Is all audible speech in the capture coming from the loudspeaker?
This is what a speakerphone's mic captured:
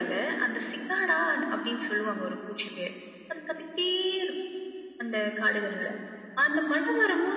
Yes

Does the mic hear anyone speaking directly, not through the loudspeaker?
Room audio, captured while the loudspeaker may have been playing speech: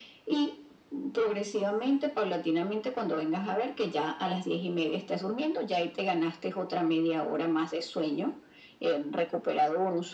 No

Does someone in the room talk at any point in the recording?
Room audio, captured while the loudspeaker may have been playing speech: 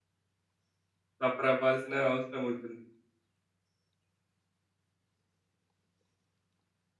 Yes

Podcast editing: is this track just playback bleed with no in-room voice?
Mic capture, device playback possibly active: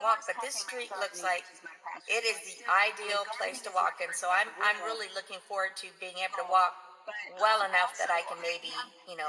No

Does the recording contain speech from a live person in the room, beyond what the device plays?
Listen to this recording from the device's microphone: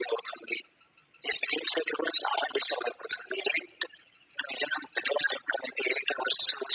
No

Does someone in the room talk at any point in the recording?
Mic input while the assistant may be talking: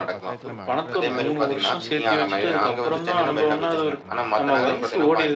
Yes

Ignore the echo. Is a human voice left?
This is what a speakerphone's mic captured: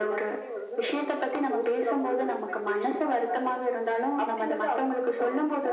No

